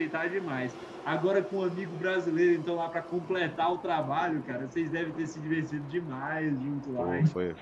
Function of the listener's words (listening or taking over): taking over